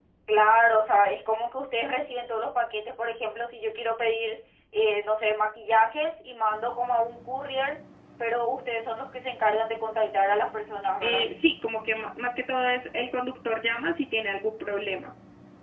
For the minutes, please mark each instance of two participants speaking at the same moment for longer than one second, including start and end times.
none

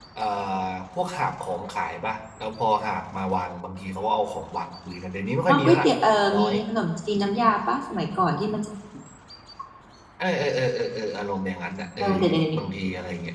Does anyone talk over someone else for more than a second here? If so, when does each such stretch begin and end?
none

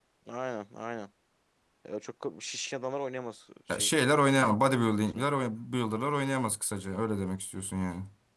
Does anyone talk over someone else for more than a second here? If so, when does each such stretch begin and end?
none

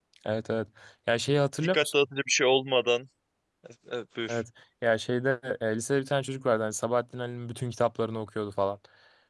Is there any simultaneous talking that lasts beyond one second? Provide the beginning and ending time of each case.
none

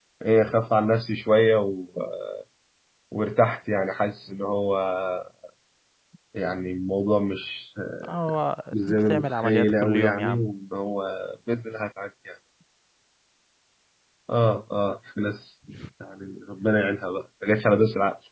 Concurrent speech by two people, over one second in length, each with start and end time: 8.7-10.5

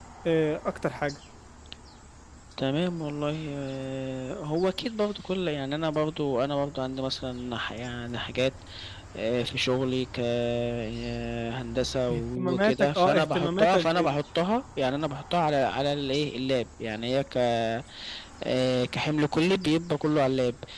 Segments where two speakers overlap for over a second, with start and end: 12.1-14.1

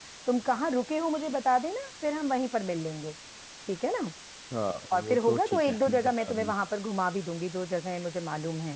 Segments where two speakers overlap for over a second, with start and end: 4.9-6.5

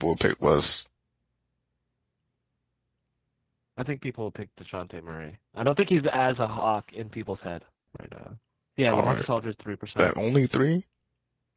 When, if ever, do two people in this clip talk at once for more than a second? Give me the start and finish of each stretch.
none

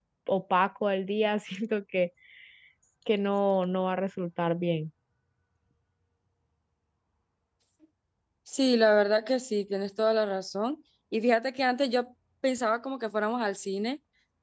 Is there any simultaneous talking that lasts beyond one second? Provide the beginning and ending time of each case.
none

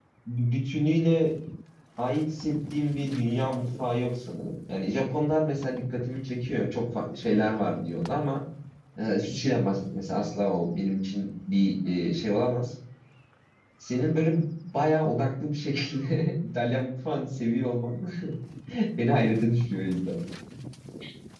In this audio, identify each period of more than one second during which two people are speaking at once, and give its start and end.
none

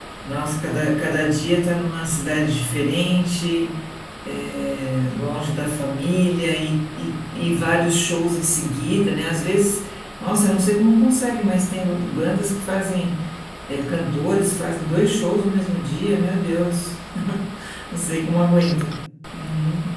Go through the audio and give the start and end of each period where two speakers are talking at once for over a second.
none

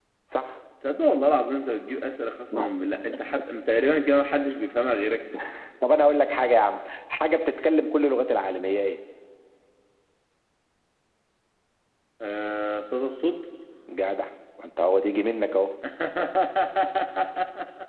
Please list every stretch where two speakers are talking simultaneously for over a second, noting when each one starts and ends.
none

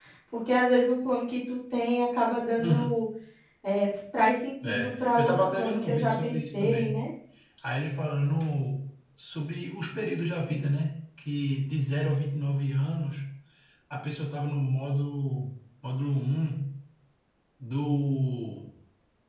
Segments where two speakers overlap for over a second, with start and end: 4.6-7.0

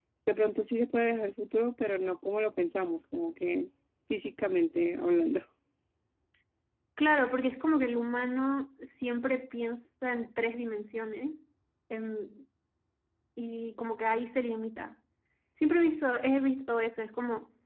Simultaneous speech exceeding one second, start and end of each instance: none

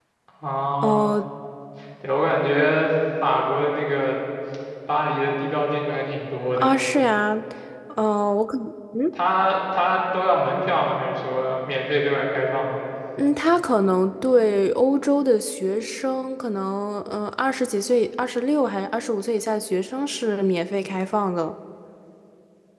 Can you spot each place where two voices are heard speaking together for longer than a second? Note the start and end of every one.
none

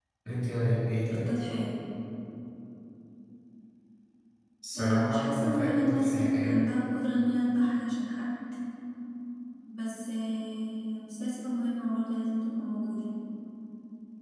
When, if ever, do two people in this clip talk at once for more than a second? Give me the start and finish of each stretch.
4.8-6.6

